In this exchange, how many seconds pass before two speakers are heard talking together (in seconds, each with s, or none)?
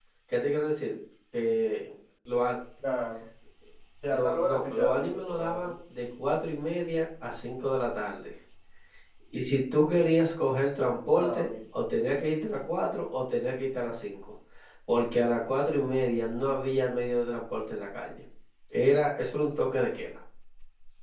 4.1 s